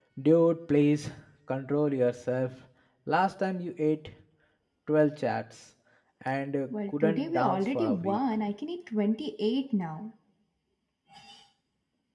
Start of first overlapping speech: 6.9 s

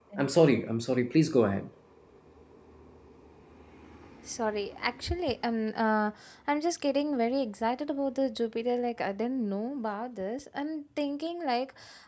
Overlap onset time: none

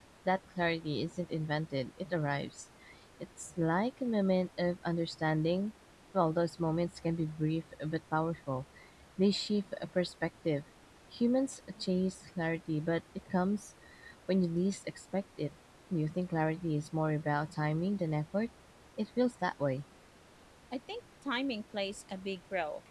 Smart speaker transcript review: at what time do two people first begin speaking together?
none

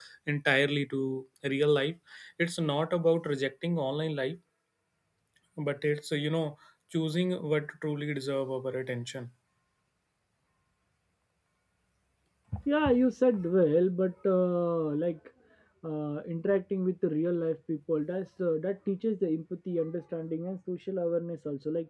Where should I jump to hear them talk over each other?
none

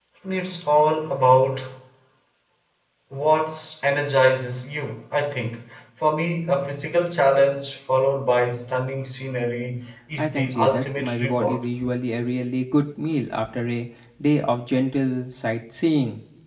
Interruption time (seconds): 10.2 s

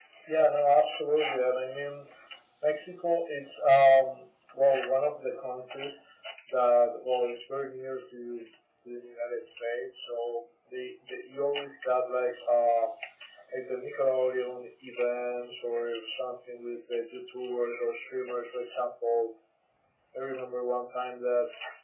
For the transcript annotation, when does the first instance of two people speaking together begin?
none

